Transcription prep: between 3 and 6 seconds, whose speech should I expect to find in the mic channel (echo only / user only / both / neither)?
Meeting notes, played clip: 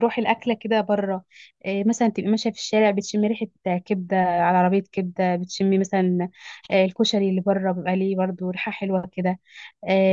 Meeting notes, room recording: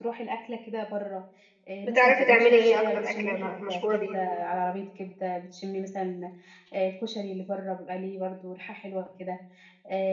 both